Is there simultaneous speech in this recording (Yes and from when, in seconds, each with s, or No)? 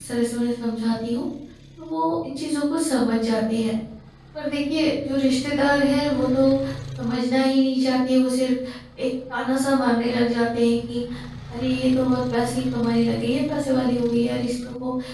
No